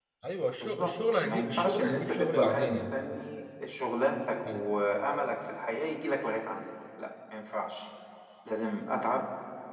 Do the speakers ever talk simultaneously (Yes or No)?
Yes